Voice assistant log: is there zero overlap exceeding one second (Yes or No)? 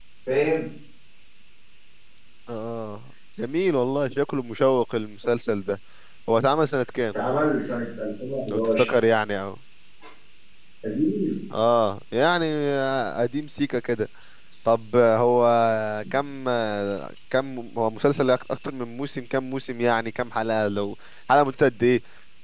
Yes